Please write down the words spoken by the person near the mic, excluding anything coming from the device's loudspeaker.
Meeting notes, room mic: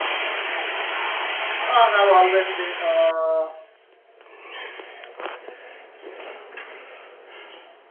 I have always been uh,

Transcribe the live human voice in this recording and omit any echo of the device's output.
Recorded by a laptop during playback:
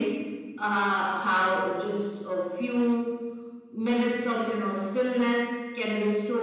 none

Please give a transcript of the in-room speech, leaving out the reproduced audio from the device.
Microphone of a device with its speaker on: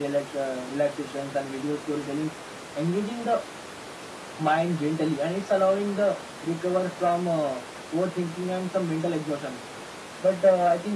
none

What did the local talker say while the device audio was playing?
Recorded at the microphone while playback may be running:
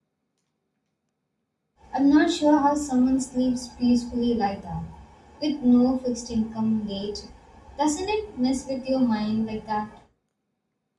I'm not sure how someone sleeps peacefully like that, with no fixed income date. Doesn't it mess with your mind like that?

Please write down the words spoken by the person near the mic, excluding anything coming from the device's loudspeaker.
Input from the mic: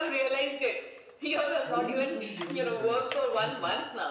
COVID is to be given the credit. Honestly,

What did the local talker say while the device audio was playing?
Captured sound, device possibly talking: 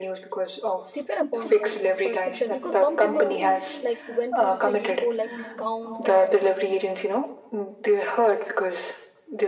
Depend upon like perception because some people's like went to Swiggy for like discounts and

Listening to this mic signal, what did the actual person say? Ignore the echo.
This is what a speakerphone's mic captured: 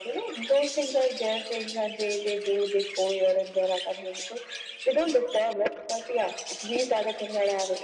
none

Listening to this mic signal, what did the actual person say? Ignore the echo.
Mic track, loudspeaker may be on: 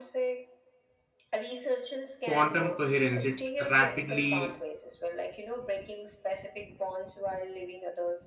quantum coherence it rapidly

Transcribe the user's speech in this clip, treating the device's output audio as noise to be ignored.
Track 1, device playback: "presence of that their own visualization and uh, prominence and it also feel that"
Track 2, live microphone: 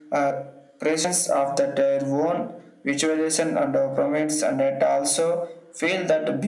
none

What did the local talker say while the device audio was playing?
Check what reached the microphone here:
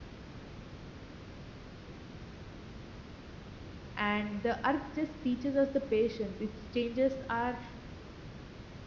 and the earth just teaches us the patience its changes are

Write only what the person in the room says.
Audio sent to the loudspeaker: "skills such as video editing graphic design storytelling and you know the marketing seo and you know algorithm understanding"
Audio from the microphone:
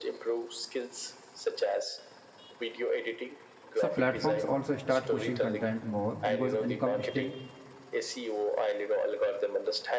so platforms also start pushing content more because income still

